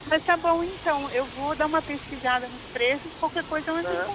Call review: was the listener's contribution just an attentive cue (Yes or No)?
No